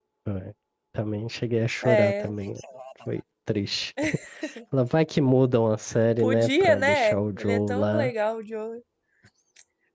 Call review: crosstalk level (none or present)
present